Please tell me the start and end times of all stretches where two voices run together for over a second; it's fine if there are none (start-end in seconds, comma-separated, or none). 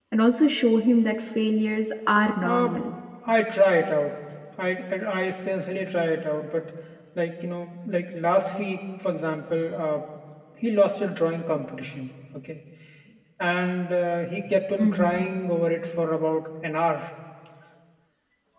none